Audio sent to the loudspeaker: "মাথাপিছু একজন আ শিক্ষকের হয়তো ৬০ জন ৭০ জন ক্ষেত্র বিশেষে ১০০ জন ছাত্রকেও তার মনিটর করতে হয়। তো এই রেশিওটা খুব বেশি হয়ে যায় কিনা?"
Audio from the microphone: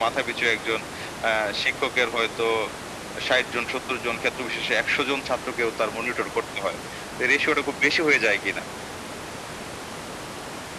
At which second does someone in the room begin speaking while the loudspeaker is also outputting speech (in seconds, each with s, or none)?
none